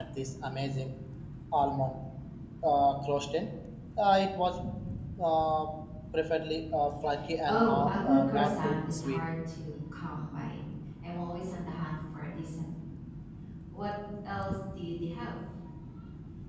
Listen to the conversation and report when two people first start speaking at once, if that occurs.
7.5 s

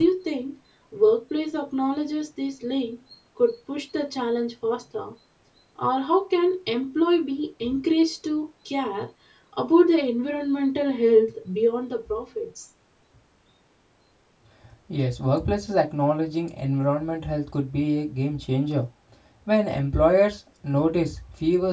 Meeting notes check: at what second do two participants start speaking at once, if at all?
none

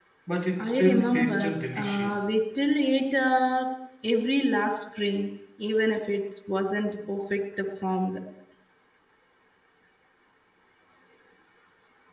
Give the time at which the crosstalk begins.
0.6 s

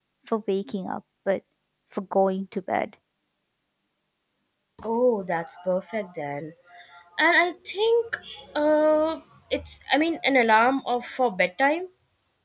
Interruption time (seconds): none

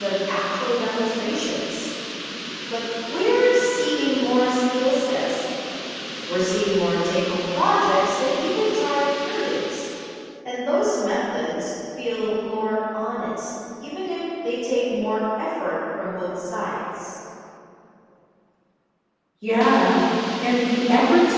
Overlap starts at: none

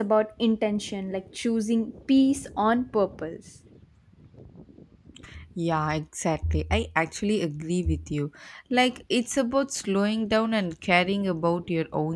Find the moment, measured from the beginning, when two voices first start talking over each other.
none

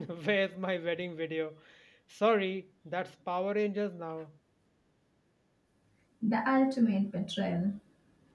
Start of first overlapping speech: none

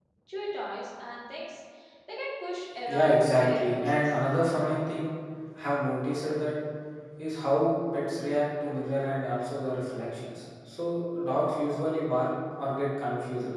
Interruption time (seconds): 2.9 s

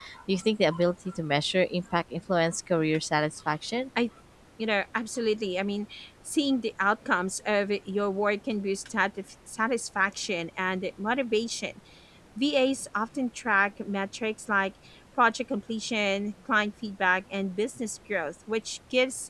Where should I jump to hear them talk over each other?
none

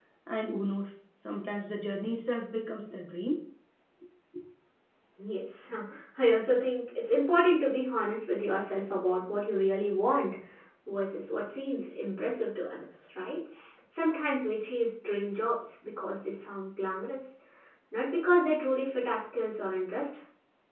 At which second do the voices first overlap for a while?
none

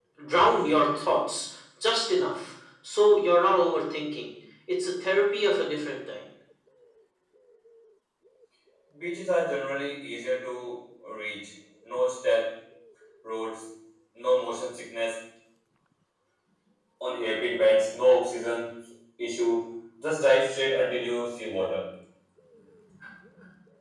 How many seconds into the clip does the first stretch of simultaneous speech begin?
none

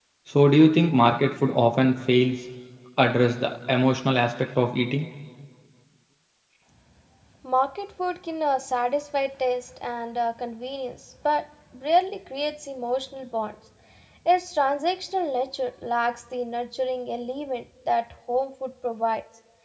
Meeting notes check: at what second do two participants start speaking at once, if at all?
none

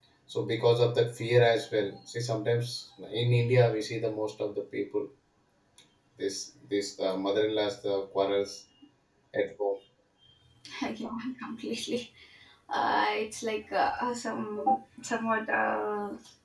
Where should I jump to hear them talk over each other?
none

